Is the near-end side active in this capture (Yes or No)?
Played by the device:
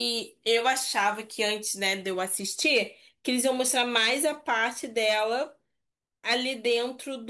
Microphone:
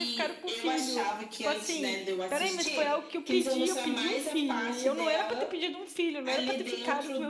Yes